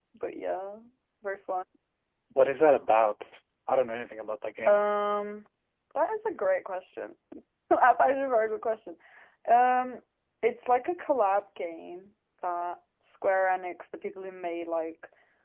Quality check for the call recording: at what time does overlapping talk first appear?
none

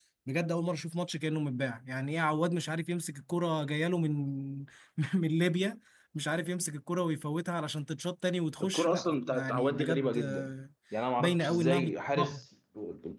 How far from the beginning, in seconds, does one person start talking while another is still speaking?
8.6 s

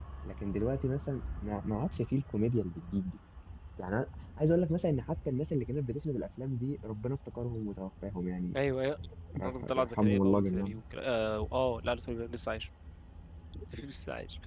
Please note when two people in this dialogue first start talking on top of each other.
9.4 s

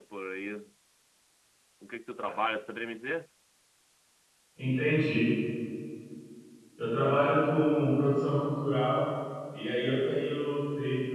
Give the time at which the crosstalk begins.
none

